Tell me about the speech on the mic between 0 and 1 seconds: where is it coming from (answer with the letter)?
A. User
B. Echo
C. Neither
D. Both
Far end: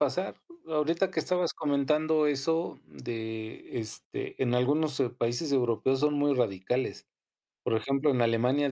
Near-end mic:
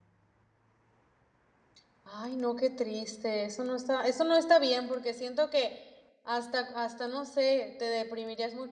C